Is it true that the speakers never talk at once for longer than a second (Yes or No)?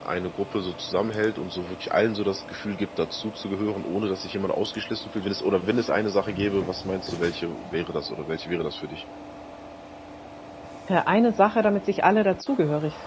Yes